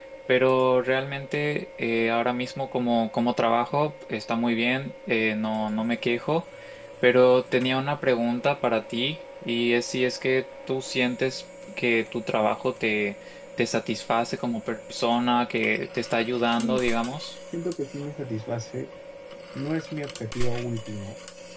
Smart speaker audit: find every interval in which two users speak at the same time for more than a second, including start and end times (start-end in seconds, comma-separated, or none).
none